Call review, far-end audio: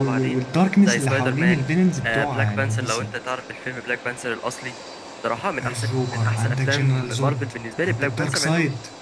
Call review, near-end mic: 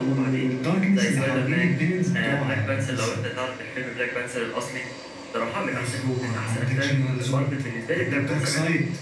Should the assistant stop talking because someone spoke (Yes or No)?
No